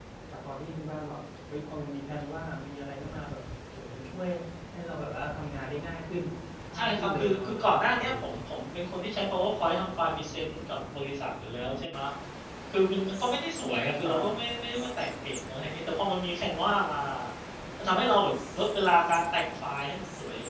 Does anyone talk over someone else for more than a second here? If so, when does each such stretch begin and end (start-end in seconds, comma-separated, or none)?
6.8-8.4